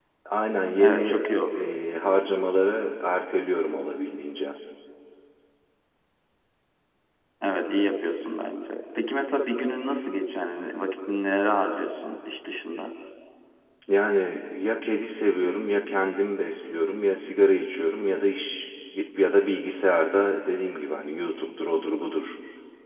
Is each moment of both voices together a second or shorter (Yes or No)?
Yes